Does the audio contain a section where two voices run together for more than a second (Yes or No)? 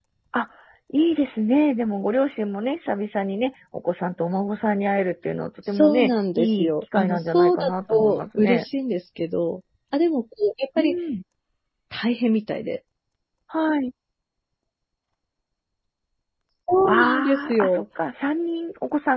Yes